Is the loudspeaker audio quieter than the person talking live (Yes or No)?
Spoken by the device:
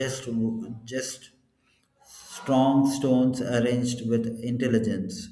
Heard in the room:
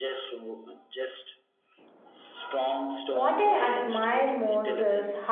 Yes